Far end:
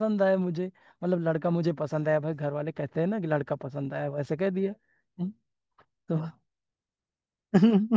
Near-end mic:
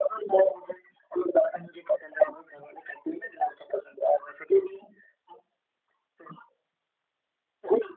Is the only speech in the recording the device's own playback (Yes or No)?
Yes